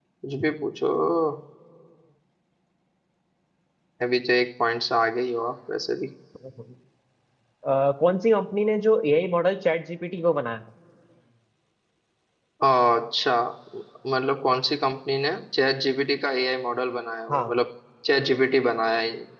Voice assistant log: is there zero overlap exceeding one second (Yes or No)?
Yes